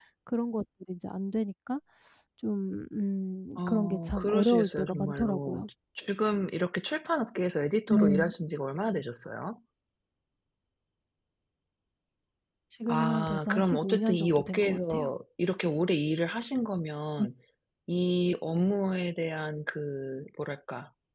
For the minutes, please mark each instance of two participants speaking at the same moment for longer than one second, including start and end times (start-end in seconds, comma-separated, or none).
3.6-5.7, 12.9-15.1